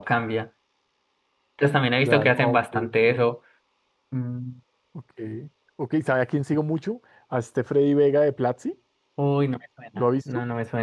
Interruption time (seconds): 2.0 s

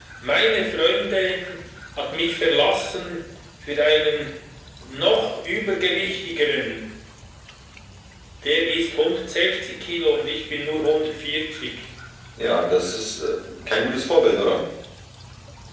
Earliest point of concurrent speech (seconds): none

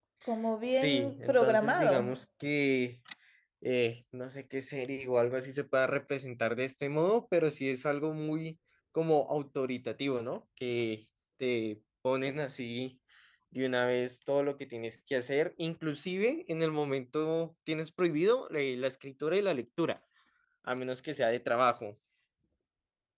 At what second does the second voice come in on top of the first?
0.7 s

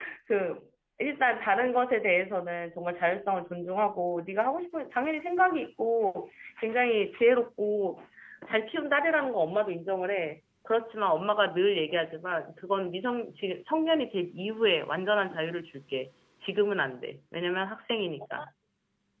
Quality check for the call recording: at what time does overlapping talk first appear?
none

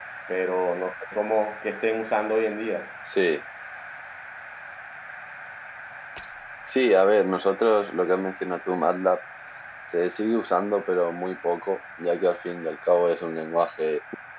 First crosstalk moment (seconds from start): none

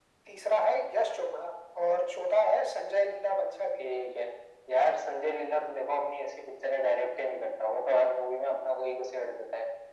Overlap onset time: none

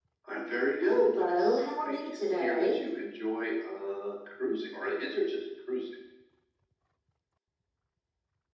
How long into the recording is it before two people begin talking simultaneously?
0.8 s

